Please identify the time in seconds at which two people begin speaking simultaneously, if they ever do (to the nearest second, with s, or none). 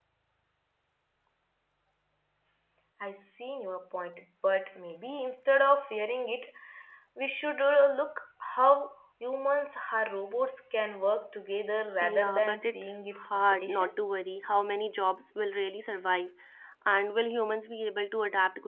12 s